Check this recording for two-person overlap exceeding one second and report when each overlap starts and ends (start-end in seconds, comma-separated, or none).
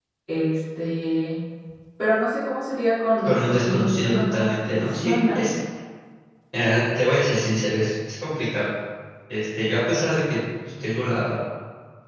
3.2-5.5